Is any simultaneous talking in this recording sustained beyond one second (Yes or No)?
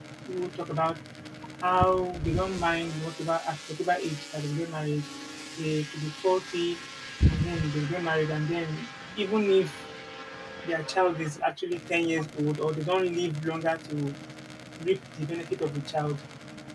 No